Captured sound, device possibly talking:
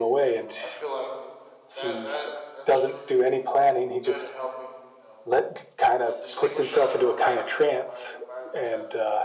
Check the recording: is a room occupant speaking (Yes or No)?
Yes